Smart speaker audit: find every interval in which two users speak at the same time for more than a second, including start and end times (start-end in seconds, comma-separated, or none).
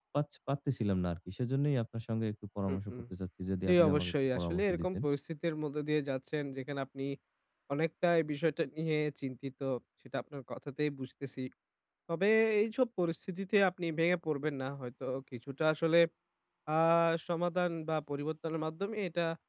3.7-5.0